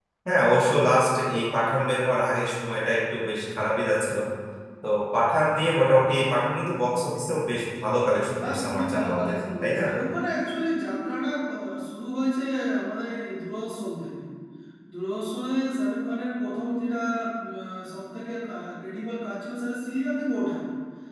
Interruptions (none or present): present